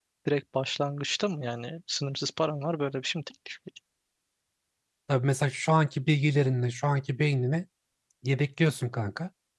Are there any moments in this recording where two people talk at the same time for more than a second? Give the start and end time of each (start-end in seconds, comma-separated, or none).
none